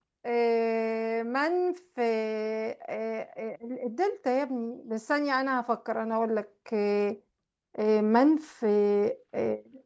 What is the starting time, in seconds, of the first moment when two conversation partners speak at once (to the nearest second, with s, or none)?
none